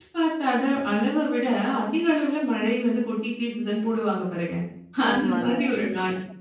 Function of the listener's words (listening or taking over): listening